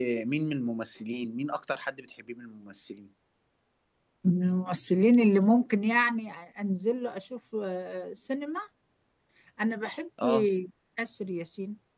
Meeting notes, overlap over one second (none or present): none